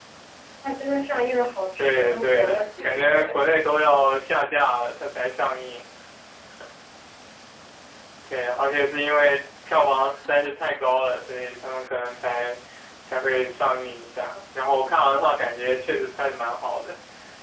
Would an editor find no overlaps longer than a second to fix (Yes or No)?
No